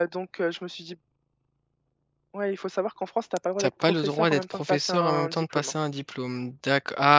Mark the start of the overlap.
3.6 s

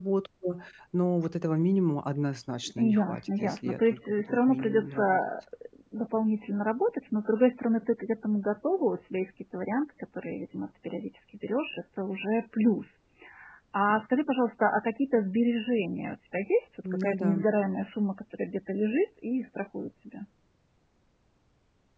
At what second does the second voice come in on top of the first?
2.8 s

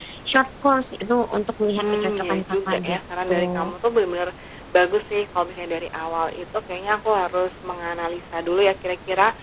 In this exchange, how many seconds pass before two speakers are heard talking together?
1.8 s

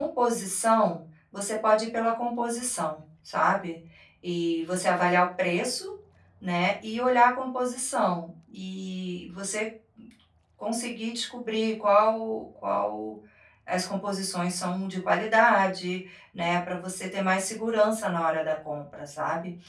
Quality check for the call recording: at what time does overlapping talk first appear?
none

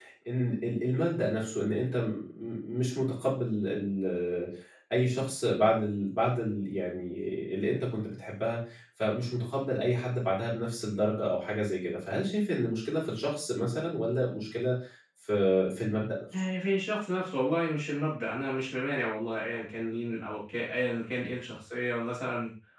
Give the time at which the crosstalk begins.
none

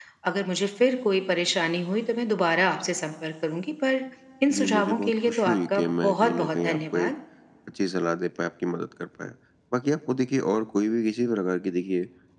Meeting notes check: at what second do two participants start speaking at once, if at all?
4.5 s

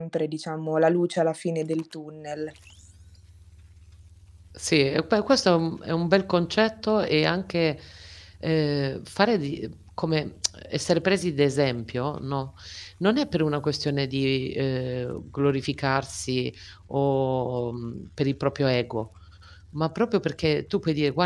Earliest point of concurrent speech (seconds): none

